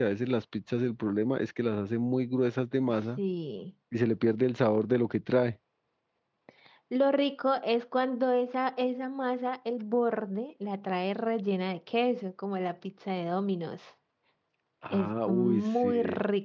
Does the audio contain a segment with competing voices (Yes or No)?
Yes